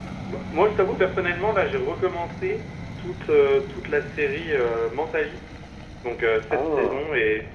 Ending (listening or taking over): listening